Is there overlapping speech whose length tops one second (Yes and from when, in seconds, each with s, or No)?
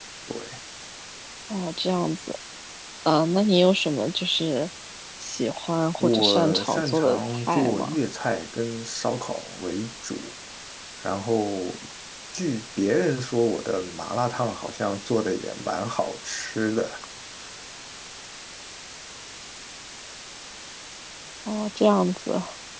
Yes, from 6.0 s